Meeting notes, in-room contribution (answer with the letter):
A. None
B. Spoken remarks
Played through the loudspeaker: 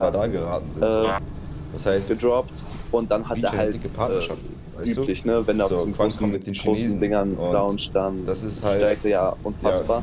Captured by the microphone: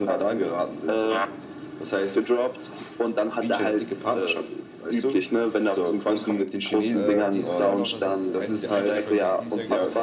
B